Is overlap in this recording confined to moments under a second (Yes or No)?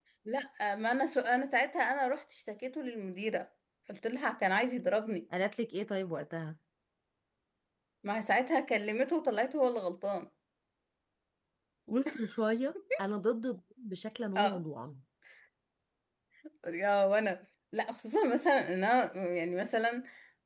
Yes